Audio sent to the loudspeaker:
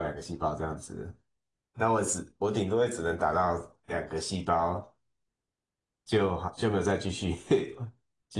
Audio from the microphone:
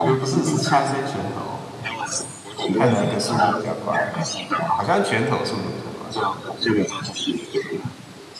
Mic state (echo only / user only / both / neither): both